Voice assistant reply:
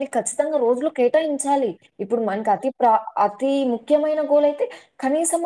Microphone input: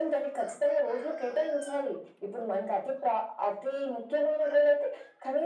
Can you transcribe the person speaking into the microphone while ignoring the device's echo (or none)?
none